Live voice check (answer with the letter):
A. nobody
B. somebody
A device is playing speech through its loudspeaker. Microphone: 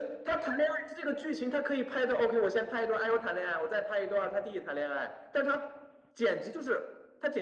A